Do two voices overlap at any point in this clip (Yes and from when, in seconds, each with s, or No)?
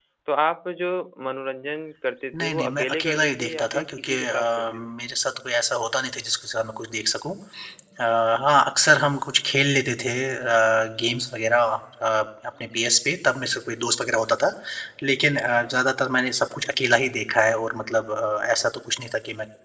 Yes, from 2.3 s